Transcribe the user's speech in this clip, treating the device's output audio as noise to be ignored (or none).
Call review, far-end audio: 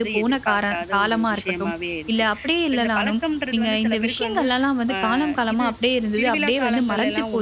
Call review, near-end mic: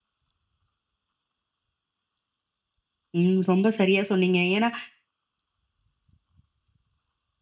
ம். ரொம்ப சரியா சொன்னீங்க. ஏன்னா,